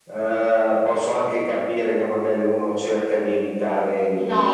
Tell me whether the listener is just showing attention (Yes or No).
No